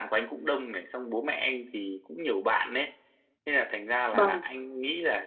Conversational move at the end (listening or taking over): listening